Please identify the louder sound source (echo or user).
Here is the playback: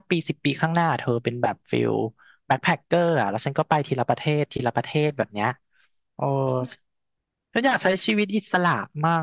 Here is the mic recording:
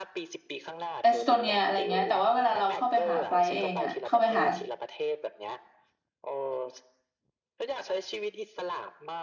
user